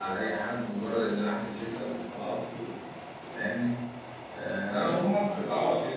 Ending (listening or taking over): taking over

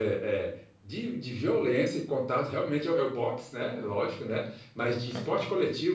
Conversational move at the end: listening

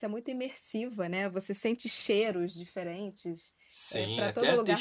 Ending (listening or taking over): taking over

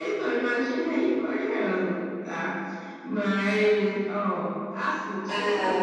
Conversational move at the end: listening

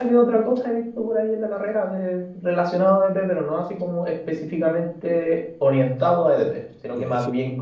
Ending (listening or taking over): listening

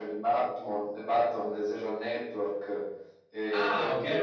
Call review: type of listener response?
taking over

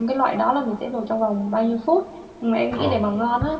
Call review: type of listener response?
listening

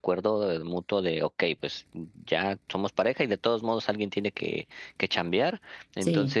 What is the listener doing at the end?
listening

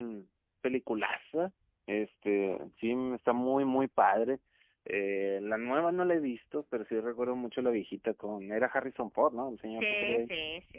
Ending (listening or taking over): taking over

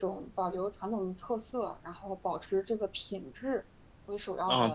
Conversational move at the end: taking over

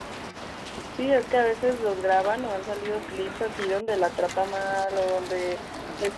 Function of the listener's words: listening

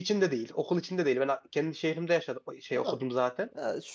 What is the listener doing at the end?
taking over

